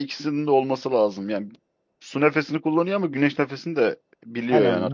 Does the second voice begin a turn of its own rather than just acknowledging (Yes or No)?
Yes